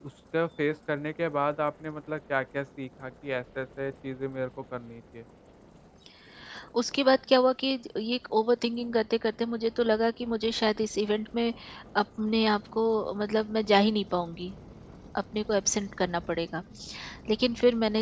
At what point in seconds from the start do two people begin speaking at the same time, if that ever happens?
none

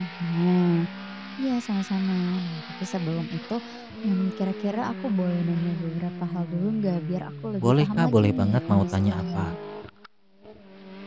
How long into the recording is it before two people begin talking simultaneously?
7.6 s

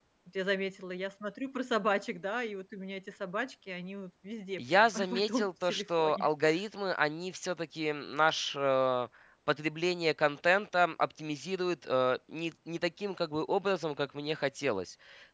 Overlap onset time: 4.6 s

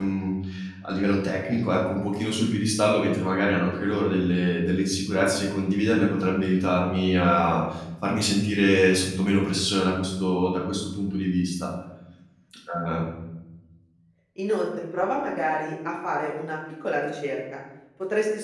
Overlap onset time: none

